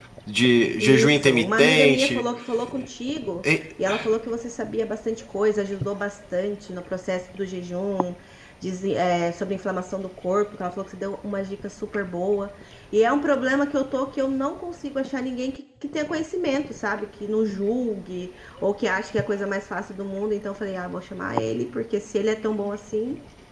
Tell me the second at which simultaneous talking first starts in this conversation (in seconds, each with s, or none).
0.8 s